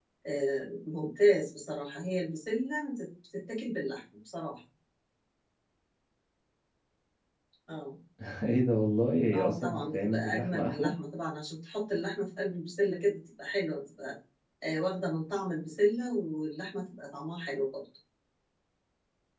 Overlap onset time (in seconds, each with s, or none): 9.3 s